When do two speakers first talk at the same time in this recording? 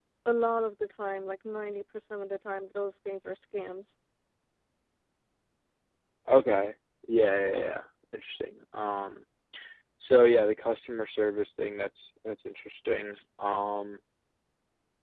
none

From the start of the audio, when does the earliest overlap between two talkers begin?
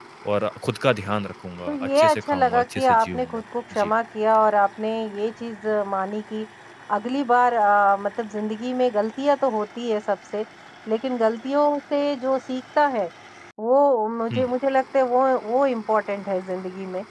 1.7 s

